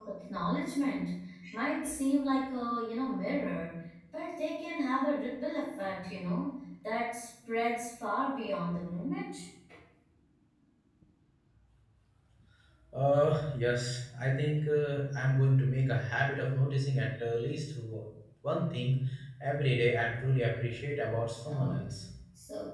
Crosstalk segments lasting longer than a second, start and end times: none

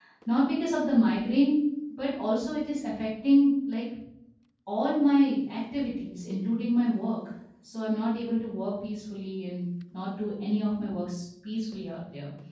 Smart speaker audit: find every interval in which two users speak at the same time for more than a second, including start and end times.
none

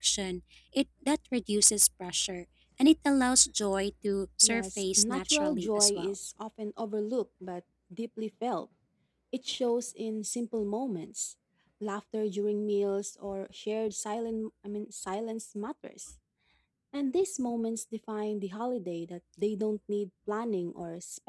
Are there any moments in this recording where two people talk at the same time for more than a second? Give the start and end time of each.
4.4-6.1

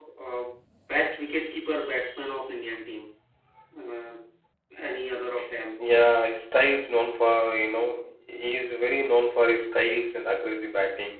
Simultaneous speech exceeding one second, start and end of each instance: none

